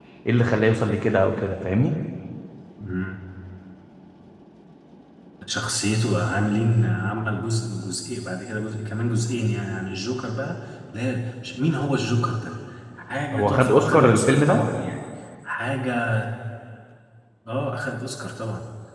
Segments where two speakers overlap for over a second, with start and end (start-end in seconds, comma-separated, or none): 13.3-14.6